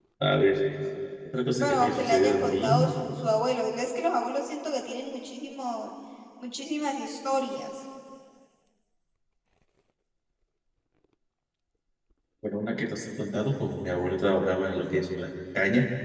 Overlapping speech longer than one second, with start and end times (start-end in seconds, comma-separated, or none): 1.6-2.9